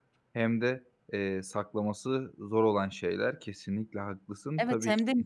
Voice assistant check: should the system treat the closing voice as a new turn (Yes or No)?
Yes